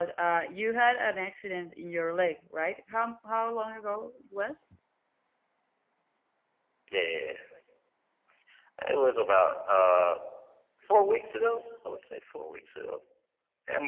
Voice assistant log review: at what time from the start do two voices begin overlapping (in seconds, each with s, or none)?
none